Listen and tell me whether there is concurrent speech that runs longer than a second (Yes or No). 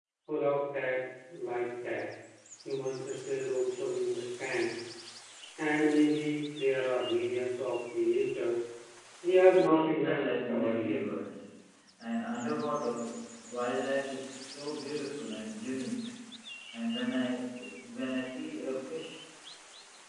Yes